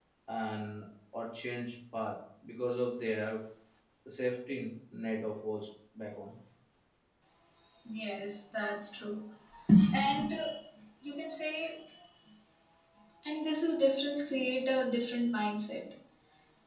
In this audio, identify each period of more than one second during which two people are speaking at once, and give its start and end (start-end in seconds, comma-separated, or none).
none